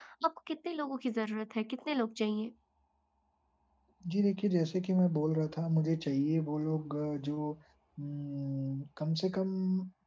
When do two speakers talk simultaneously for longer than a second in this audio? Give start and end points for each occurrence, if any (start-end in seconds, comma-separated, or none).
none